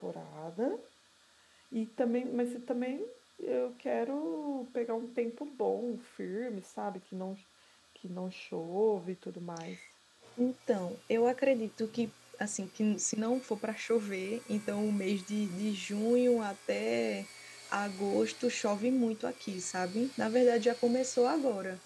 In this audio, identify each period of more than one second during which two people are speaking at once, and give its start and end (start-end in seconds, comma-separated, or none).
none